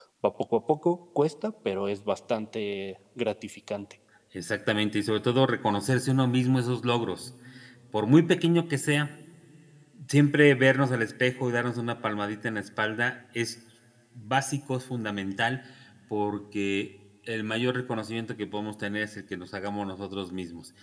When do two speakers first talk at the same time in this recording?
none

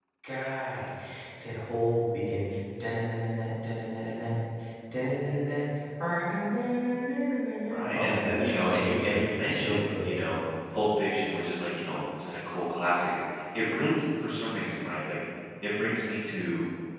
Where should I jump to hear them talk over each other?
8 s

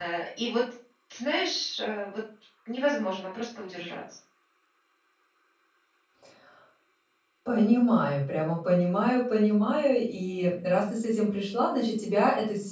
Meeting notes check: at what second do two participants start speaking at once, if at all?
none

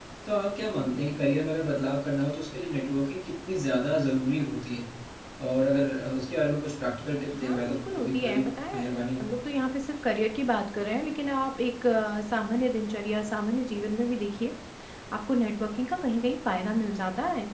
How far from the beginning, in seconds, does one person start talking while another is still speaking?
7 s

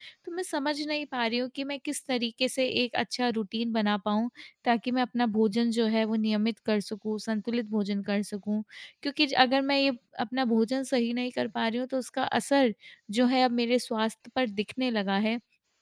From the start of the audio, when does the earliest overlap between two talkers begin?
none

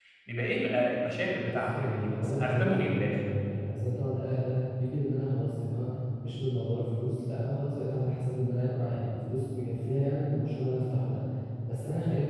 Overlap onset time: 2 s

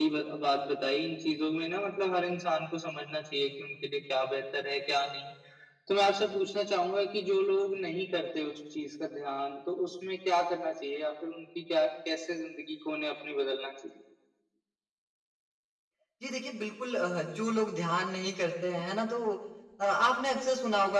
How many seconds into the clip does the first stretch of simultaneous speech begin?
none

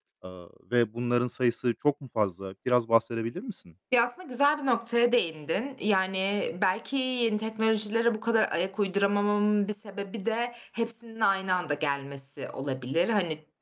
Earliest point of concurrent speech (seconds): none

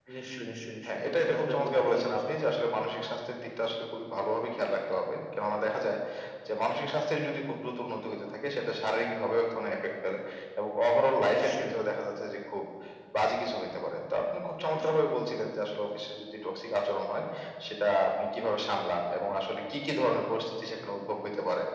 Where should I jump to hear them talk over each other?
1 s

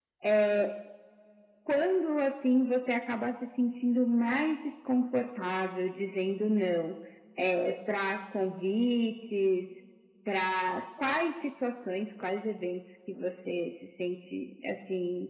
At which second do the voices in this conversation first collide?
none

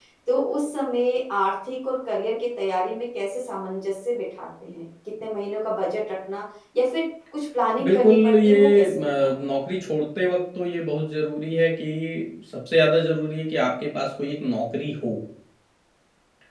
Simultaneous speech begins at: 8 s

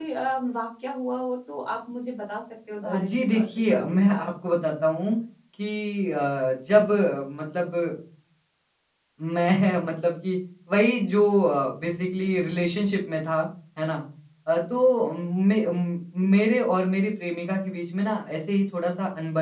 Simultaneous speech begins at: 3 s

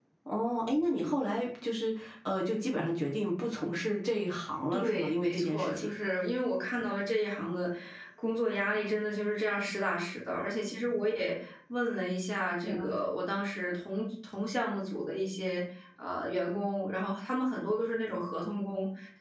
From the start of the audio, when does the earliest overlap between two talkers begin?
5 s

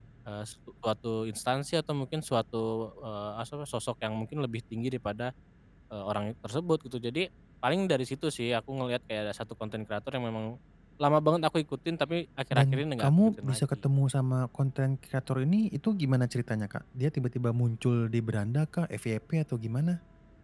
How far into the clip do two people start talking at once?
13 s

